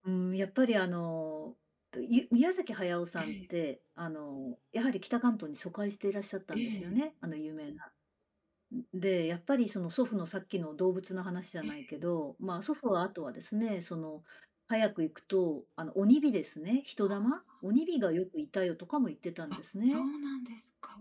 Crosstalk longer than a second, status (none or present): none